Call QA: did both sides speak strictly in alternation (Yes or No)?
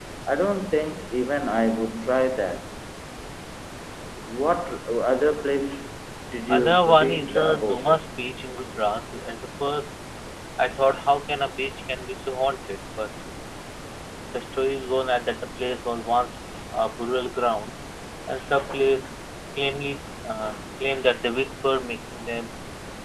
No